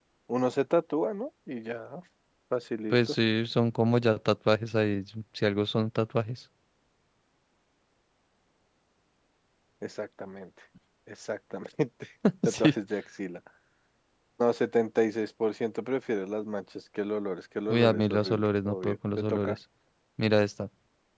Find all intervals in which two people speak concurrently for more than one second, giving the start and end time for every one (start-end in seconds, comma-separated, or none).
17.7-19.6